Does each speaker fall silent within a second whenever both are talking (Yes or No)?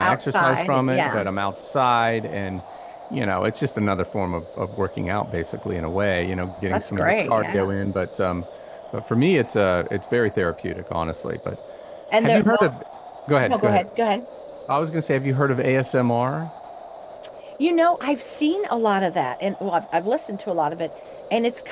No